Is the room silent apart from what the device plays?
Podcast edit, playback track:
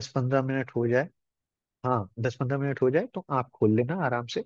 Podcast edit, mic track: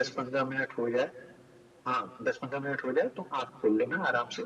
Yes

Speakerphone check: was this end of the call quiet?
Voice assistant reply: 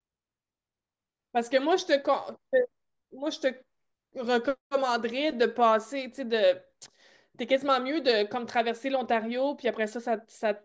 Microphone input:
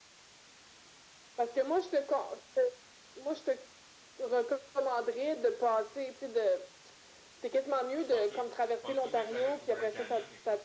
No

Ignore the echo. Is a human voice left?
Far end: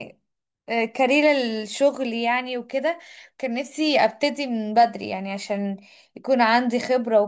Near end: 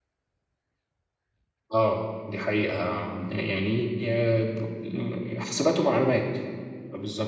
Yes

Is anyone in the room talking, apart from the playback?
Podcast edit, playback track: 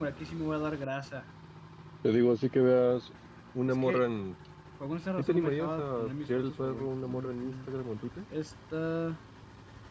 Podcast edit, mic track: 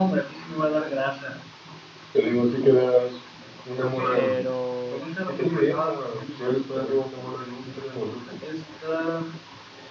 Yes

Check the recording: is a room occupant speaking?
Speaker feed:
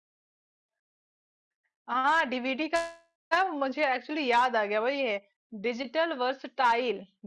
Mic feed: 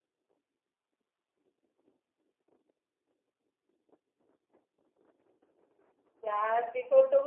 Yes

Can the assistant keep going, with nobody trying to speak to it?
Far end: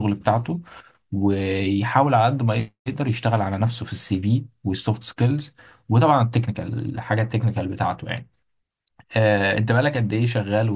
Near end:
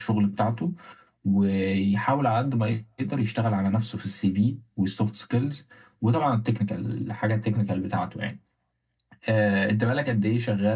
Yes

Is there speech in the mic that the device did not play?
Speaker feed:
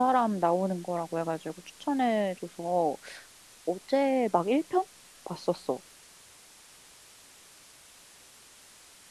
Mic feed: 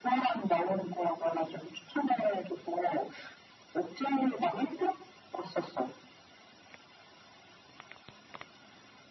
No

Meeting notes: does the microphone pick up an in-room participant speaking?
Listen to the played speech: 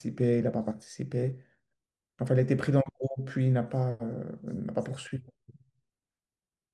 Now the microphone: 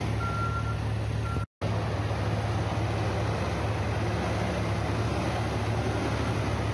No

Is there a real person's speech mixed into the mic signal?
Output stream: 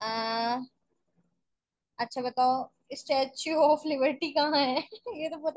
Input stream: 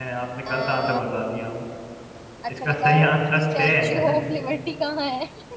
Yes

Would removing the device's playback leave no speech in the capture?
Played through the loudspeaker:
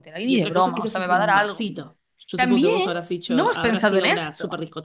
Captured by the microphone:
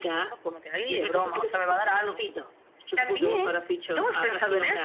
Yes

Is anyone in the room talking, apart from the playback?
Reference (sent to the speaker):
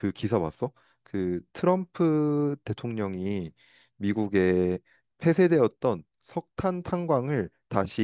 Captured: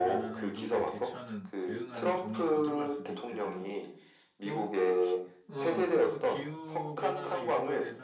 Yes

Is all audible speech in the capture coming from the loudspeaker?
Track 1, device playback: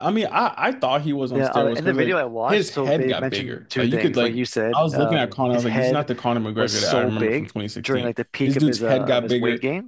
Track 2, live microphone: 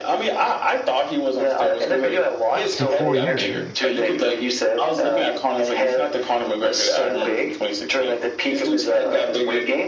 No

